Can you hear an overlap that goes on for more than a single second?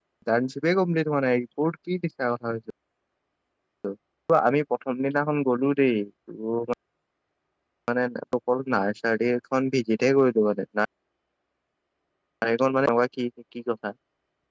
No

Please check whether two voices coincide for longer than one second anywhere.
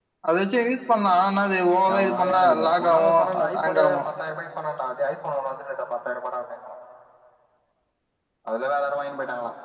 Yes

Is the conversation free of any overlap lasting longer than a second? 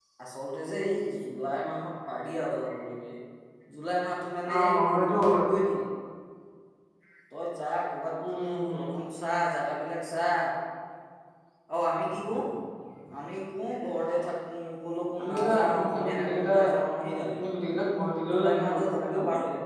No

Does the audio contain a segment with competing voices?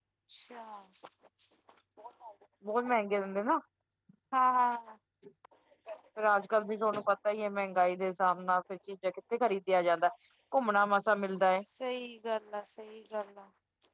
No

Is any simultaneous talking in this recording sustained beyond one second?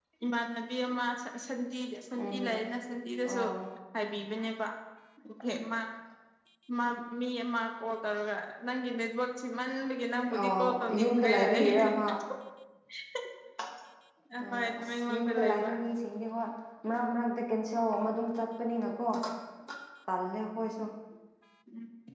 Yes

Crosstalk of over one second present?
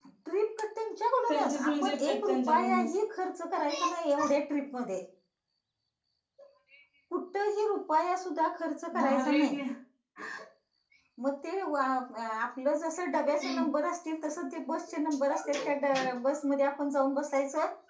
Yes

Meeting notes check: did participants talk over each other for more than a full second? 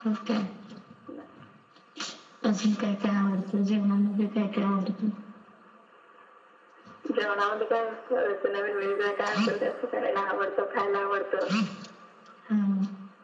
No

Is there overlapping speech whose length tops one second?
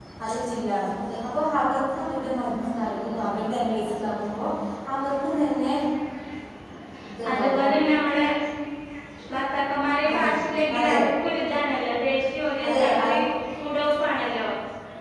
No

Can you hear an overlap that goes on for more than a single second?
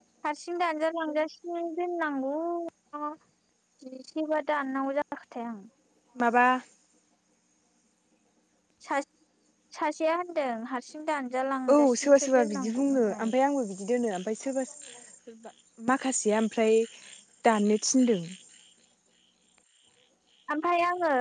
Yes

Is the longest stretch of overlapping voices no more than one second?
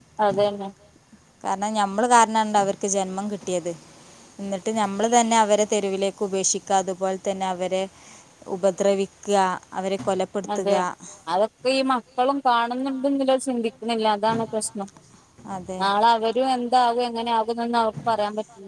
Yes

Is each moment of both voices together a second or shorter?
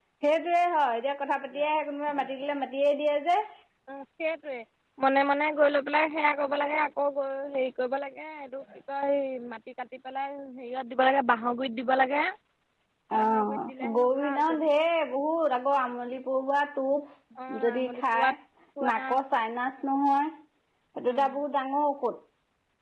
No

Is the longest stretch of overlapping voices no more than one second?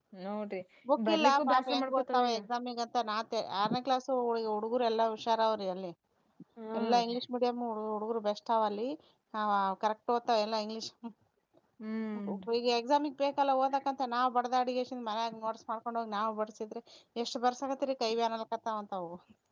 No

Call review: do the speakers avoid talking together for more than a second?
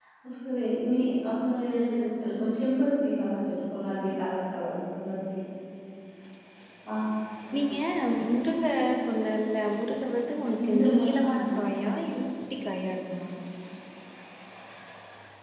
No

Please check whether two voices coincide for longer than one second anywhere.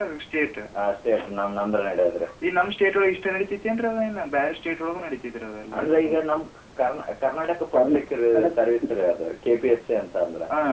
No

